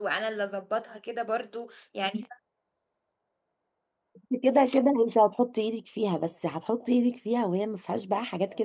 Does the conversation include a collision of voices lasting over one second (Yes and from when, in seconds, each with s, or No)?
No